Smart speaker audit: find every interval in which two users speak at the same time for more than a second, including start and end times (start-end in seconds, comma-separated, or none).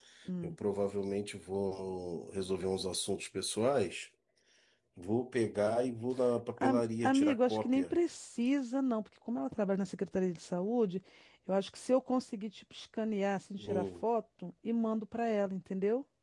6.6-8.0